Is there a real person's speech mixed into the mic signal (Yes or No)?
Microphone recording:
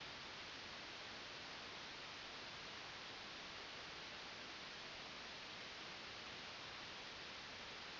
No